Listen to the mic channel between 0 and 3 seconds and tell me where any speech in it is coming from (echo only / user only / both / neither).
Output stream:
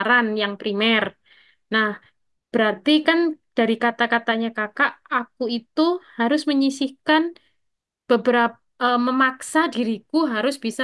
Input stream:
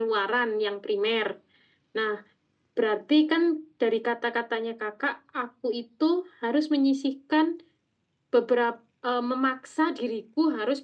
echo only